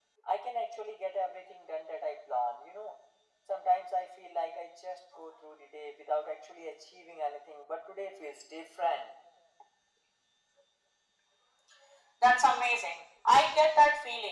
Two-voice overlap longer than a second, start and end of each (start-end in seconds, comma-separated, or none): none